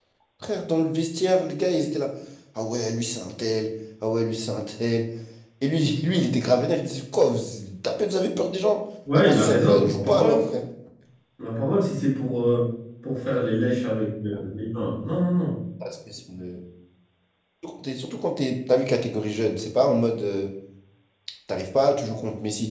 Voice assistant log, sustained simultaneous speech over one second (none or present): present